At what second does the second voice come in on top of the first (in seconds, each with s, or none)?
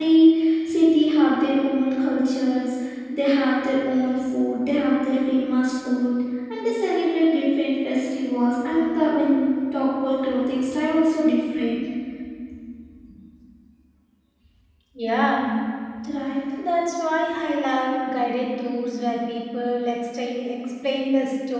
none